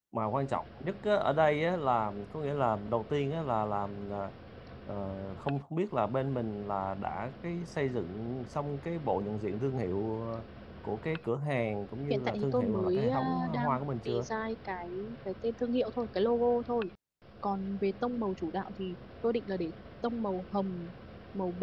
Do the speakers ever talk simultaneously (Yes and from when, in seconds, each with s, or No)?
Yes, from 12.1 s